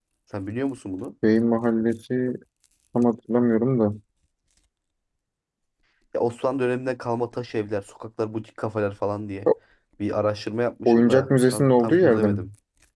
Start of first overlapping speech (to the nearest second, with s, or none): 11 s